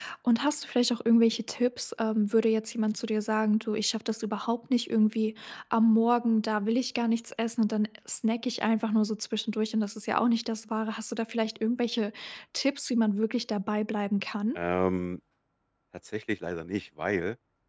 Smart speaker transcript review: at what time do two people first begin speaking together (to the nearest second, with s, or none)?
none